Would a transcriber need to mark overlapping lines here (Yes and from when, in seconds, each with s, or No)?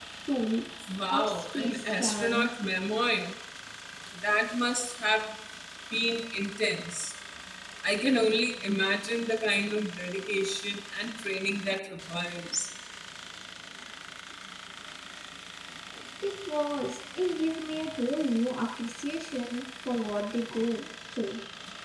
Yes, from 1.1 s